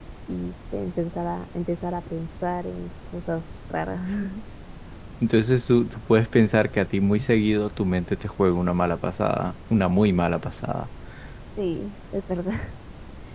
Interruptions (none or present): none